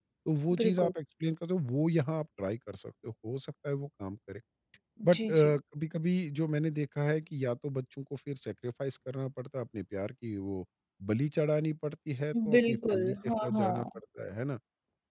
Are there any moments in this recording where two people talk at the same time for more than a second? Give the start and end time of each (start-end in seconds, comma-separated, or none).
12.6-14.0